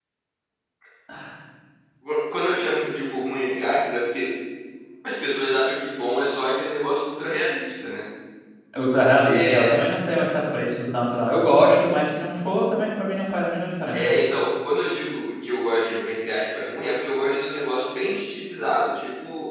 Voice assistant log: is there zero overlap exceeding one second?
Yes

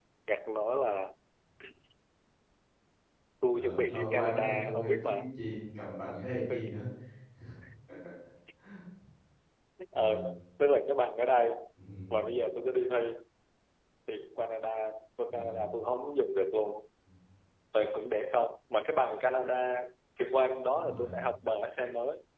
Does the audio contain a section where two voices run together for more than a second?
Yes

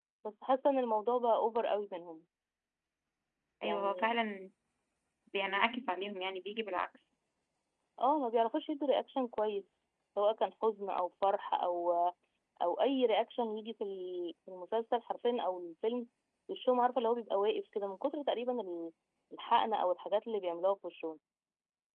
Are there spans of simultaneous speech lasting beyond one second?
No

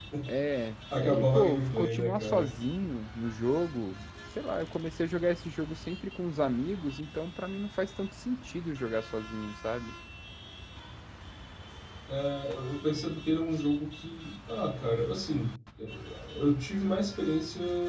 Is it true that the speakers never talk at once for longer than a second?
No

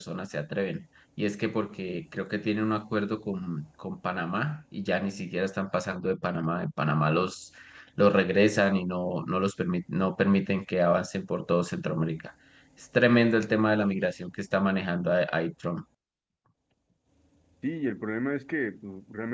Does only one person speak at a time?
Yes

